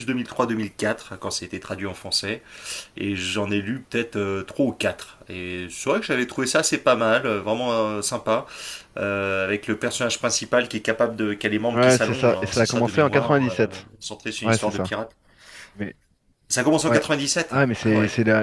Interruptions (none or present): present